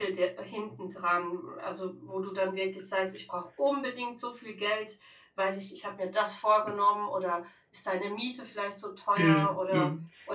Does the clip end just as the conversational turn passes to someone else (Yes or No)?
Yes